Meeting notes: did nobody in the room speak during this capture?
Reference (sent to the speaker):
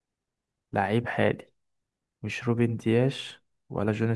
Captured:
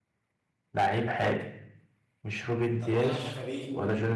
No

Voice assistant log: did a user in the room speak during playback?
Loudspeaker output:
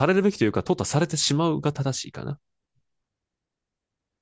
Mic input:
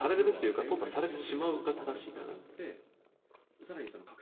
Yes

